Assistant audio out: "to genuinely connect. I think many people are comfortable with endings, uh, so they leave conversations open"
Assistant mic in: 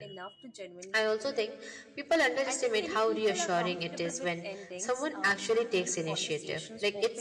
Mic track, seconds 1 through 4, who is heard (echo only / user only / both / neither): both